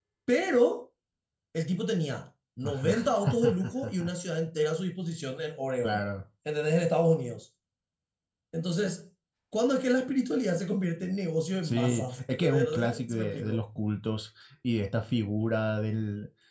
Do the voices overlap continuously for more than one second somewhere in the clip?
Yes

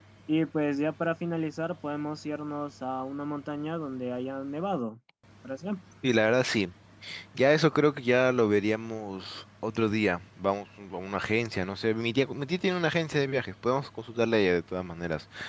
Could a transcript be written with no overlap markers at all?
Yes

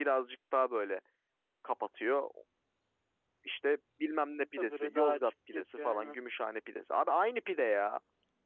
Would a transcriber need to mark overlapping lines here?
Yes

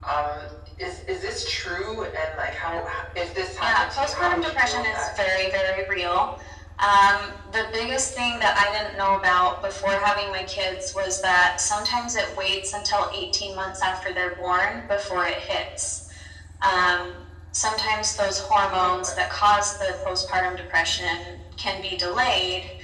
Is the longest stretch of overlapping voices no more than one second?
No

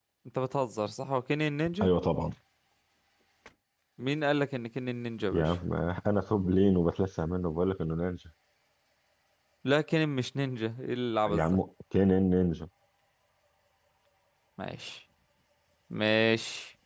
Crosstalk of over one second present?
No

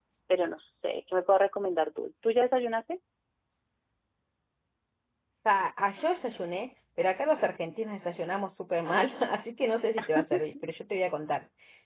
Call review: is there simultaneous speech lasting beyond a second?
No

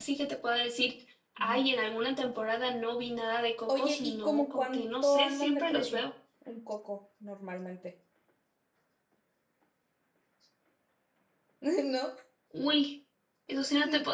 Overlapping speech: Yes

